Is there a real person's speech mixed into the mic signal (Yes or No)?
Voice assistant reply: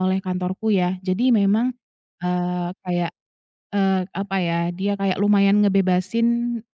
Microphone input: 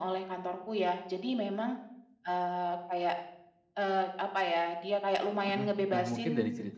Yes